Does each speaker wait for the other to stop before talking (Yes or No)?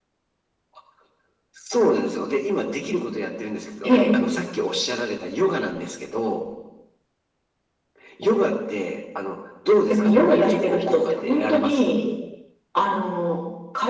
No